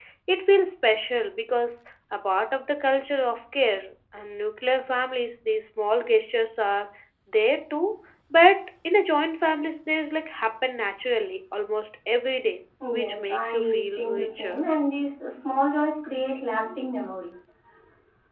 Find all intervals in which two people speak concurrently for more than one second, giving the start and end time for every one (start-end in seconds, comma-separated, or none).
12.9-14.6